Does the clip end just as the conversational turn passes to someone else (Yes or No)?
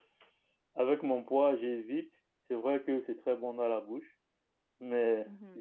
No